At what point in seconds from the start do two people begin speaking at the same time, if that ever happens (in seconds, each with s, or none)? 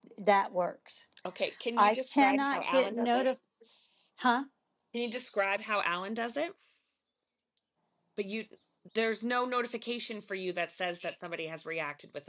1.8 s